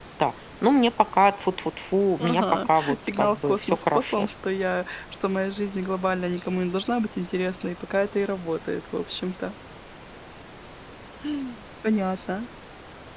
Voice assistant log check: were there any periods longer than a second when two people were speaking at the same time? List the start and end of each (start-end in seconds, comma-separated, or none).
2.2-4.2